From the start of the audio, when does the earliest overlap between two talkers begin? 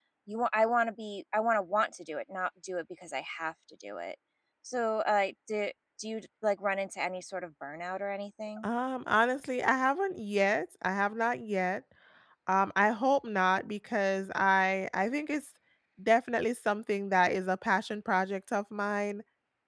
none

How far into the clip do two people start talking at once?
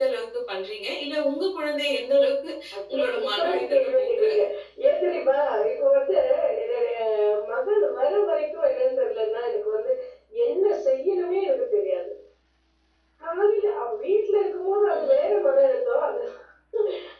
2.9 s

